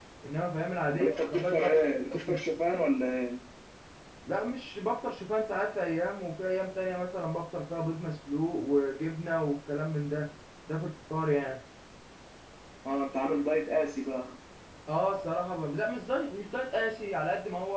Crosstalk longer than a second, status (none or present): present